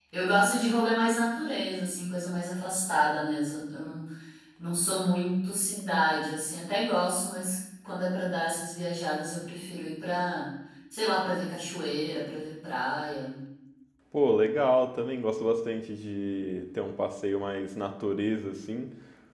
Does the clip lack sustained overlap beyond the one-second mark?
Yes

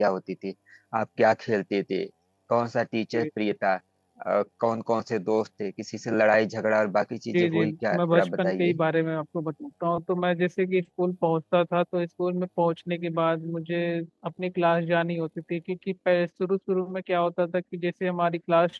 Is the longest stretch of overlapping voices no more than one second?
No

